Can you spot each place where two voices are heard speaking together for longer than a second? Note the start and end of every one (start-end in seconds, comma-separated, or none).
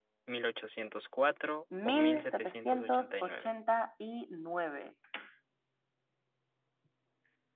1.9-3.5